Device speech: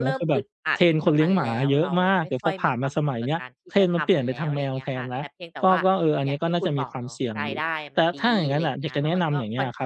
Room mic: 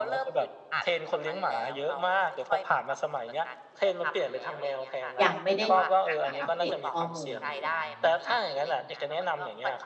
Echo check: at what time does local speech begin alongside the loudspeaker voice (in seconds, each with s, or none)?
5.2 s